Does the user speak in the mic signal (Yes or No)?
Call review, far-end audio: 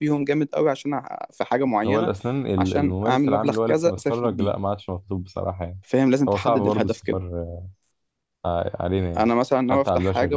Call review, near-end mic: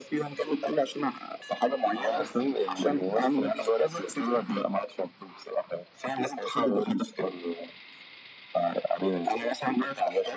No